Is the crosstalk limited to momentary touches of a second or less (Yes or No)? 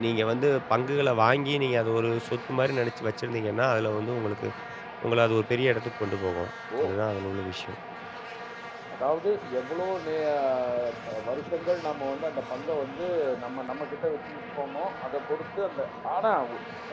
Yes